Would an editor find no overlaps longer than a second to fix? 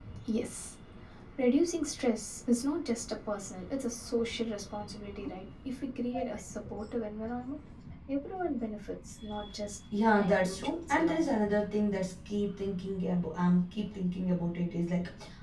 No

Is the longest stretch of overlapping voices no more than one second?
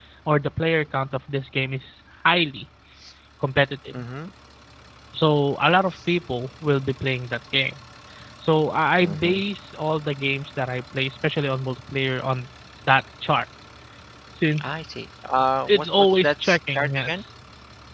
No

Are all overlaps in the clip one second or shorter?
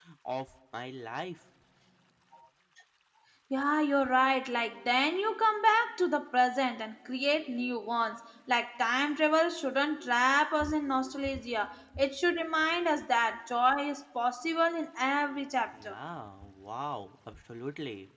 Yes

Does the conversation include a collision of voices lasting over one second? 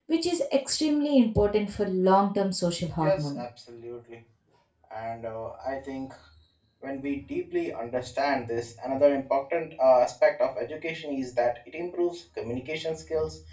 No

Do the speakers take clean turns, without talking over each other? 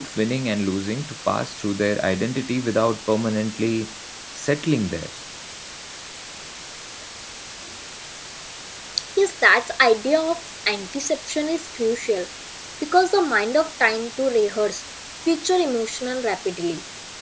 Yes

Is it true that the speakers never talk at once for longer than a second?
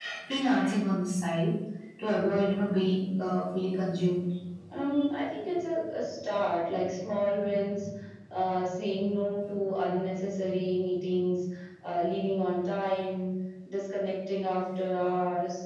Yes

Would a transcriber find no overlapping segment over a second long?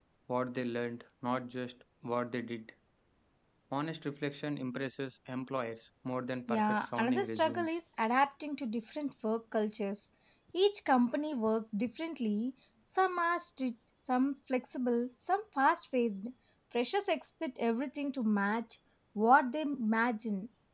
No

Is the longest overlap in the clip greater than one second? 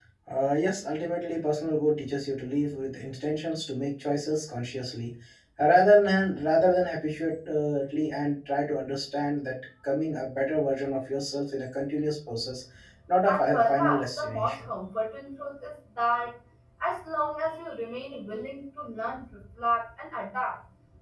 Yes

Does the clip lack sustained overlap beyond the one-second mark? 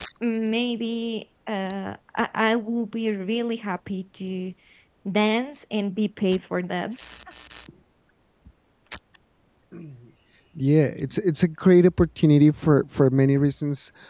Yes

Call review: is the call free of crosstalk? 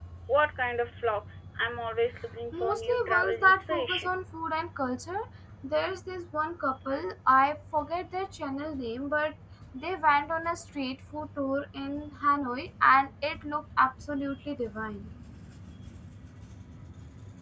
No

